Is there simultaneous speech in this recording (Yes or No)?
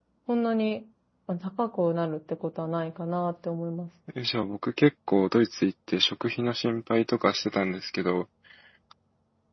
No